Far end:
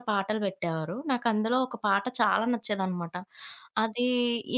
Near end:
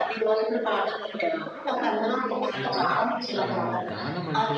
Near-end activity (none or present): present